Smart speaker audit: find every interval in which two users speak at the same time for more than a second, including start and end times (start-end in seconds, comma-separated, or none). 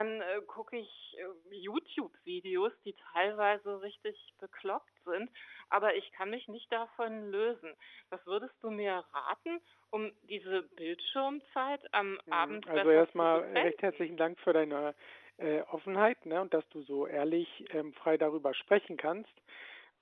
12.3-14.1